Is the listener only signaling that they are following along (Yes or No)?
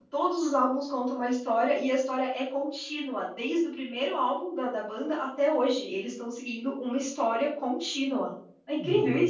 No